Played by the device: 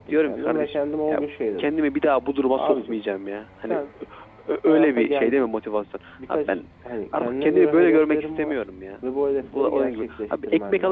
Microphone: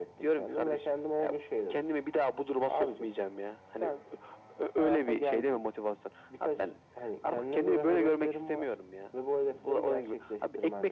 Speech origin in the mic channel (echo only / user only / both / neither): echo only